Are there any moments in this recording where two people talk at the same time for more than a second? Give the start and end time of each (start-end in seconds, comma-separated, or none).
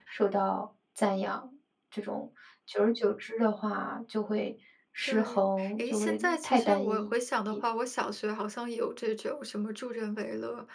5.1-7.1